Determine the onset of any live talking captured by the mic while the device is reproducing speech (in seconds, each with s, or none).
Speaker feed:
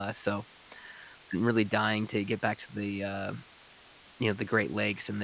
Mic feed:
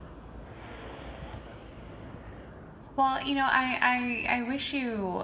3.0 s